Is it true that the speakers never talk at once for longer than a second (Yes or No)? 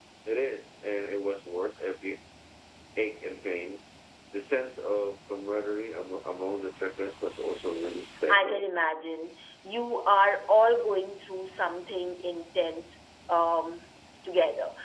Yes